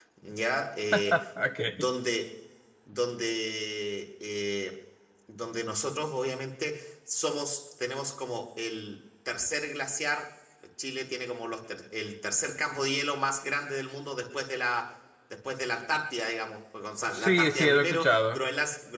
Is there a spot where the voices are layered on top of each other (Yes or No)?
Yes